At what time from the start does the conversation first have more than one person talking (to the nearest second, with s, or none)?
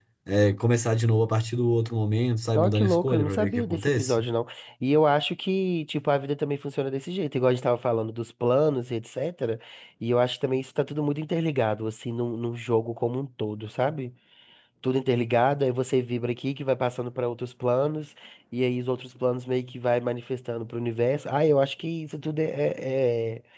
3 s